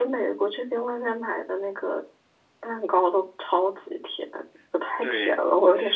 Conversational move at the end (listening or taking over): taking over